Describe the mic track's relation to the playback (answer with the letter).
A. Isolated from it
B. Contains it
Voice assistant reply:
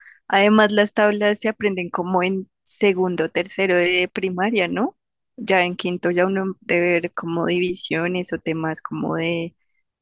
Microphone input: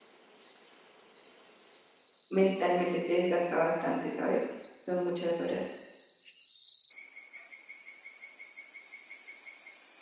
A